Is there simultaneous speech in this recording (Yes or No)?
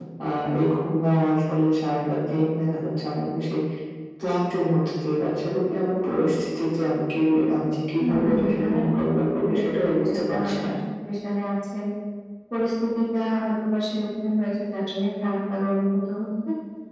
Yes